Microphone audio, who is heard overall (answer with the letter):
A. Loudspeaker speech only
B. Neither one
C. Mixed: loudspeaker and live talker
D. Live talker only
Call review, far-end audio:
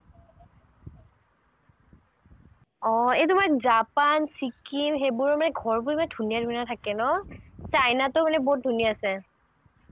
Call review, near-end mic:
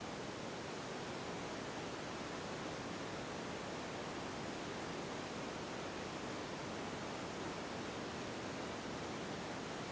B